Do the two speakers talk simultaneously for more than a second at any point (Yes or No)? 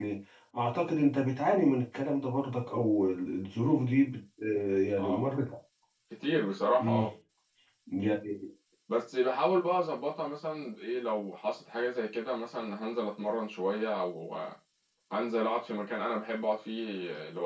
No